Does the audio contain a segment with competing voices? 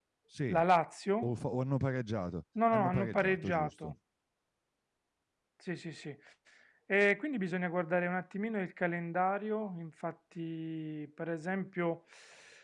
Yes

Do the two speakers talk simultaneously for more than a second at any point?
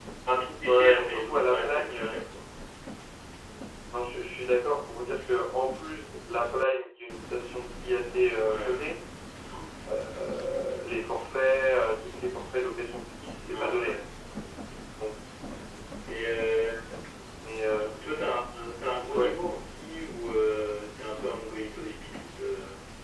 Yes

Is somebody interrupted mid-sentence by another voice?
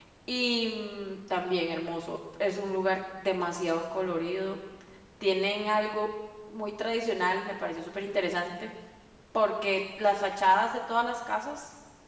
No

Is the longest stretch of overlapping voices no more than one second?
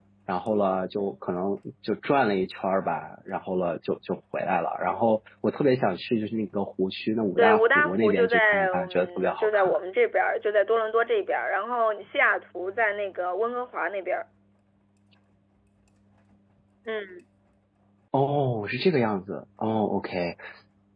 No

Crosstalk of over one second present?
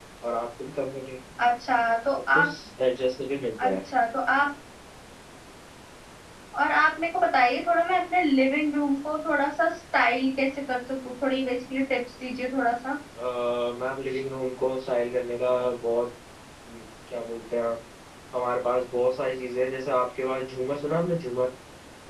No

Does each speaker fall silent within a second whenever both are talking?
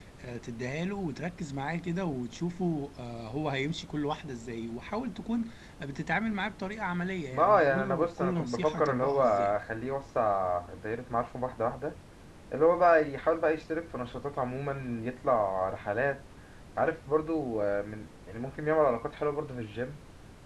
No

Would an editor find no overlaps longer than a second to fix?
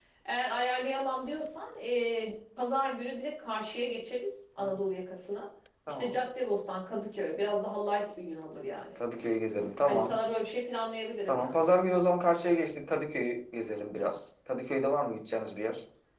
Yes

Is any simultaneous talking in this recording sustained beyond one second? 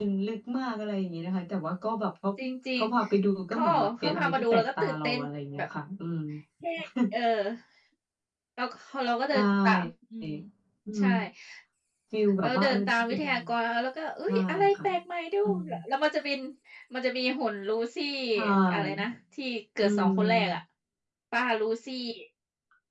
Yes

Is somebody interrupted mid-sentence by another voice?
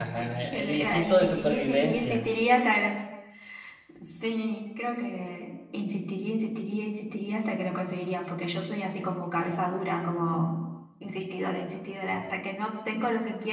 Yes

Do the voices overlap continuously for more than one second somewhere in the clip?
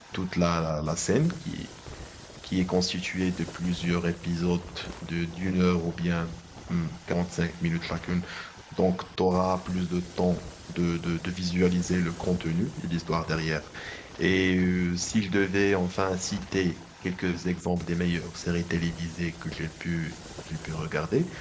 No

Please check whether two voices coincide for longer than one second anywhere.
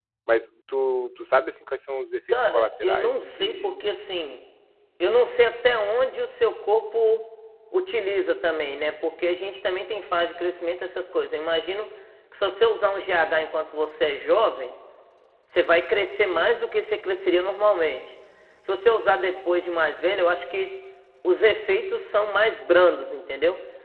Yes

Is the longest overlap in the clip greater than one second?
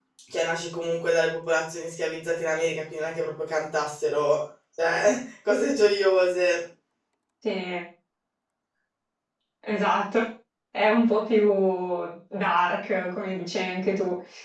No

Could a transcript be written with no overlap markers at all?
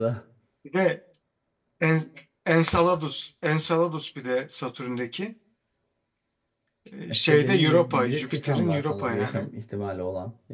No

